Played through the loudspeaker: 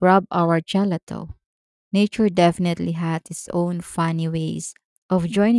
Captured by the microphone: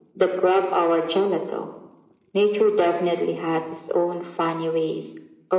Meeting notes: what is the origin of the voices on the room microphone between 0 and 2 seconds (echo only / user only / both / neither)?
echo only